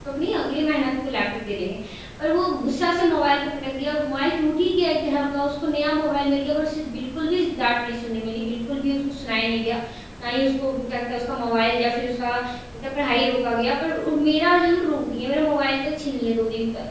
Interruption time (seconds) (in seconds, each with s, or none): none